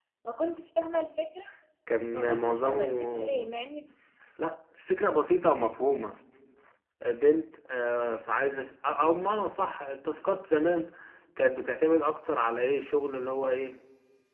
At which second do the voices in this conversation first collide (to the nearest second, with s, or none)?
2 s